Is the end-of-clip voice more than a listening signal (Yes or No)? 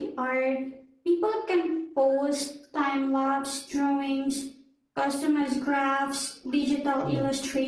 No